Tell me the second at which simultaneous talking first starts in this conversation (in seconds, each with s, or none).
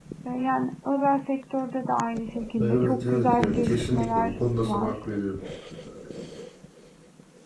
2.6 s